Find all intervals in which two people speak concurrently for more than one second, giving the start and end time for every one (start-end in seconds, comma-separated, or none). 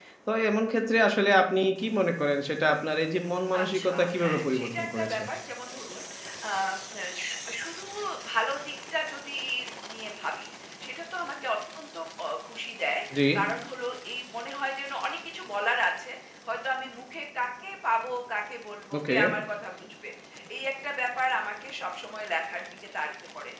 3.6-5.2